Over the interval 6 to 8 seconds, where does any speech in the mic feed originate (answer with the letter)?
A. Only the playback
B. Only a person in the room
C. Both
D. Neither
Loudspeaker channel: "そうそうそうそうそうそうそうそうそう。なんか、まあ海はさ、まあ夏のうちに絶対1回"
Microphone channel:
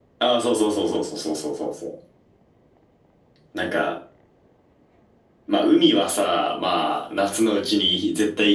A